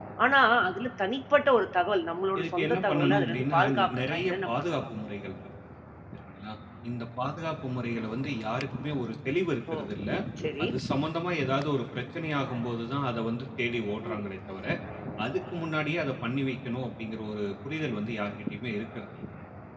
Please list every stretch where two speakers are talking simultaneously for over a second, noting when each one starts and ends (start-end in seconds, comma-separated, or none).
2.4-4.8